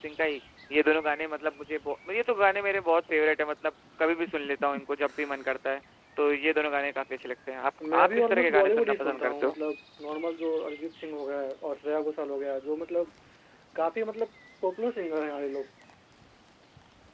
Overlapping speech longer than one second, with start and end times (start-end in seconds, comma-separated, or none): 7.9-9.6